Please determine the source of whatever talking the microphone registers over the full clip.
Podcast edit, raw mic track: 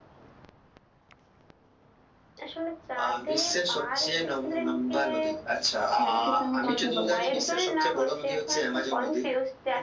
both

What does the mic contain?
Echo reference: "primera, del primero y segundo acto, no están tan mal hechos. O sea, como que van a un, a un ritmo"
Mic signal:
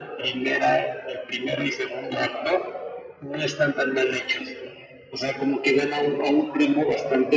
echo only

